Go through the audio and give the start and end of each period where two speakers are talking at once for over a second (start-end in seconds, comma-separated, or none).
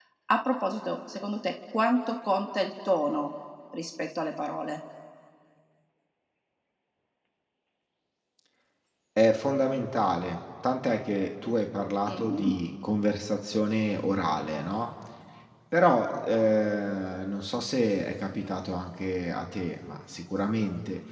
none